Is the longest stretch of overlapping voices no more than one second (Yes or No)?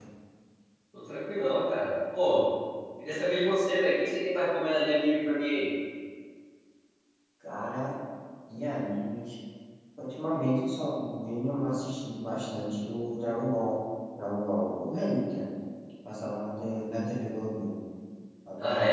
Yes